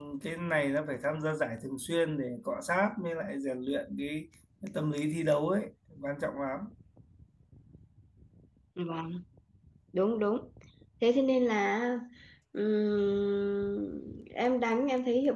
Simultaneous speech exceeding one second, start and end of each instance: none

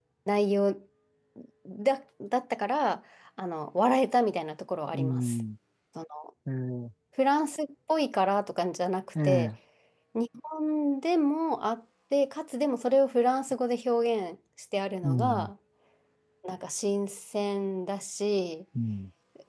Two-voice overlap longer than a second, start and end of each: none

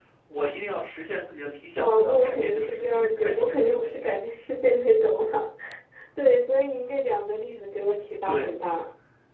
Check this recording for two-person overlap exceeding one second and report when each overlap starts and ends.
1.8-4.0

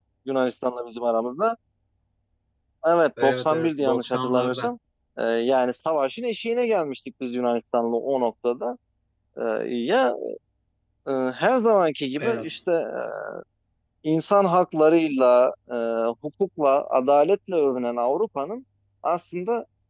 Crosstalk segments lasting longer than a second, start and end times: 3.2-4.7

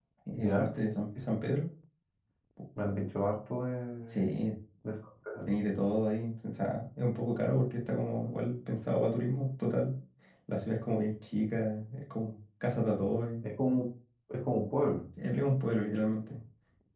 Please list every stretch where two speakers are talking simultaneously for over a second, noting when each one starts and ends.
none

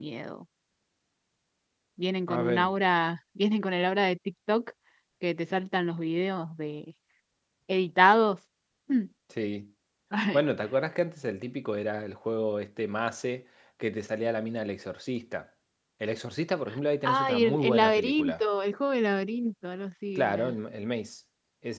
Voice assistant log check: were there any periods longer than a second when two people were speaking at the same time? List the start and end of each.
17.0-18.4

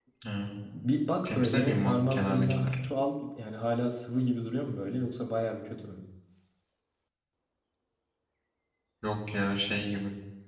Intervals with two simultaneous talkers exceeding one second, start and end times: 1.2-2.8

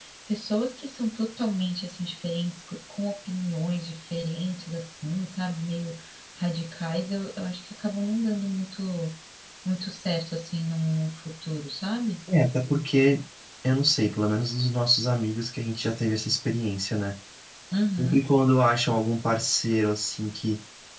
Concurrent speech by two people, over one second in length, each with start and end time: none

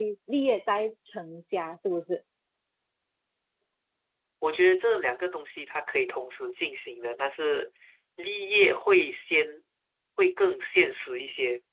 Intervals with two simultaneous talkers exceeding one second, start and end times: none

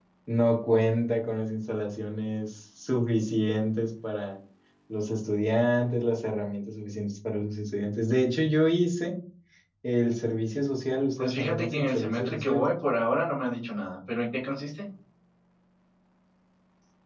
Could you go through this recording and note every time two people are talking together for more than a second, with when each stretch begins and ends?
11.2-12.6

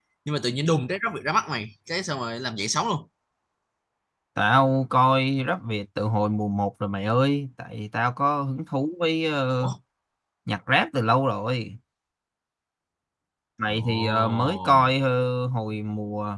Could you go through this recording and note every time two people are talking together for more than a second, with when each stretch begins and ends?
13.7-14.9

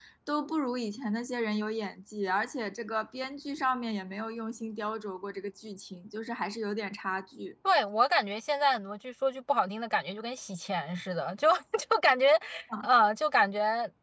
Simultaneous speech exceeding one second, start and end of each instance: none

